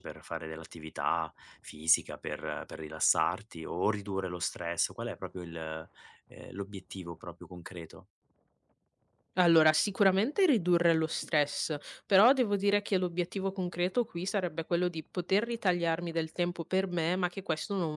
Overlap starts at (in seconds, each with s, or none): none